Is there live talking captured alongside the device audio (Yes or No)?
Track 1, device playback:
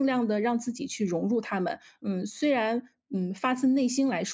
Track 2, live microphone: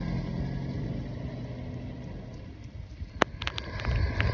No